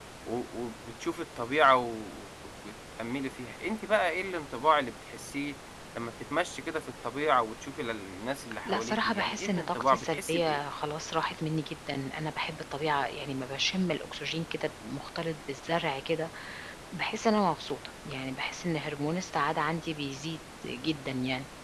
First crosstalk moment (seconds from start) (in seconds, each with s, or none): 8.6 s